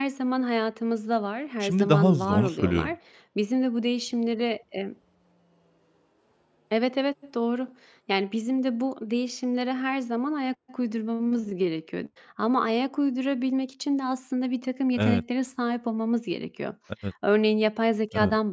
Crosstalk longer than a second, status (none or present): present